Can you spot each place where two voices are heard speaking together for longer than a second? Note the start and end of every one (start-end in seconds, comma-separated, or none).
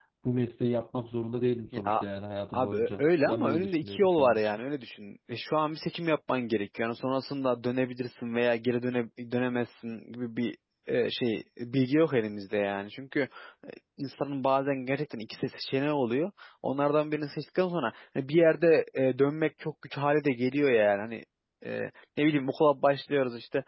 2.5-4.6